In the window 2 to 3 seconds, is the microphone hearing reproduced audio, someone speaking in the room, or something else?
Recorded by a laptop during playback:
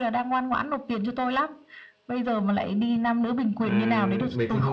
echo only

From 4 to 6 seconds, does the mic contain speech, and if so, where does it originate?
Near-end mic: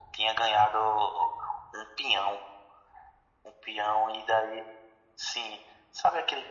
echo only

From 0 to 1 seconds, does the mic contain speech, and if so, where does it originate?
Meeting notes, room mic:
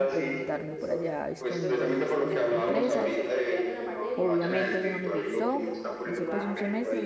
both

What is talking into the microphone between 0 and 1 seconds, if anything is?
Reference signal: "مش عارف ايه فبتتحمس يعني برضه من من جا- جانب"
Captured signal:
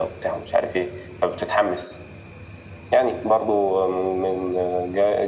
echo only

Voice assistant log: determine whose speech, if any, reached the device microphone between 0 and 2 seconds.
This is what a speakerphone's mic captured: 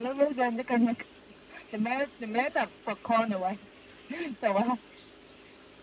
echo only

